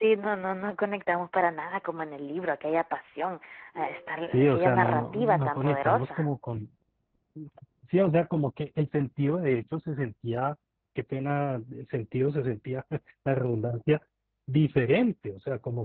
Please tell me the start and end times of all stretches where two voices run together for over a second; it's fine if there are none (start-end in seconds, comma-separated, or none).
4.3-6.3